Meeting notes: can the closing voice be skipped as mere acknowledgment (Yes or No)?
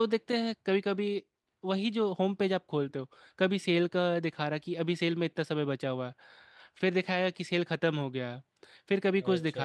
Yes